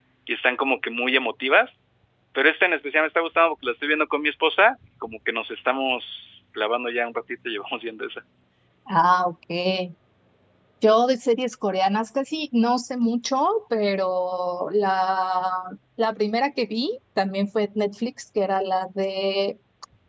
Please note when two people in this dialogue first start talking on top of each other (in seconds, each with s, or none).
none